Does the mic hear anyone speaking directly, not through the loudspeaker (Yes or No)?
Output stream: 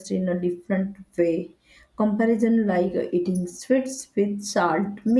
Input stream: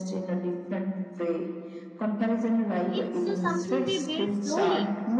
Yes